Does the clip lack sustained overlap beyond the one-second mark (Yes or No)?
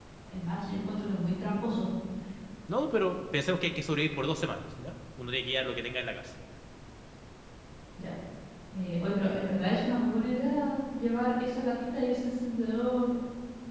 Yes